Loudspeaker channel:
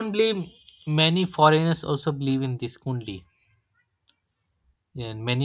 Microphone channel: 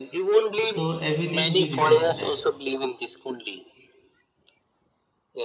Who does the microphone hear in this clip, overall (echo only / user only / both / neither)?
both